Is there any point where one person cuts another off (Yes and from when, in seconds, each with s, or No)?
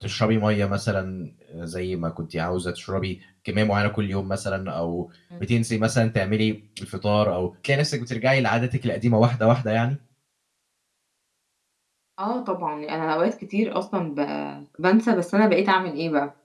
No